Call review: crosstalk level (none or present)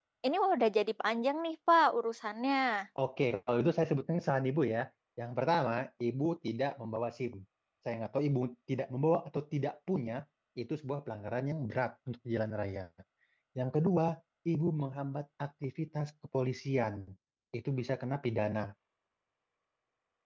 none